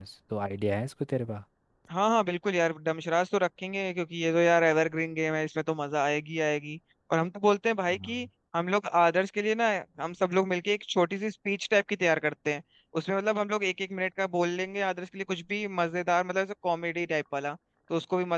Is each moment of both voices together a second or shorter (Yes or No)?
Yes